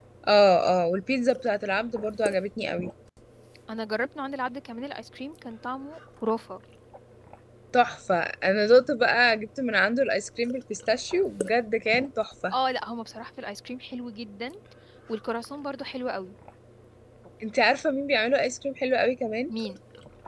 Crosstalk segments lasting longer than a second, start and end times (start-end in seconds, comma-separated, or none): none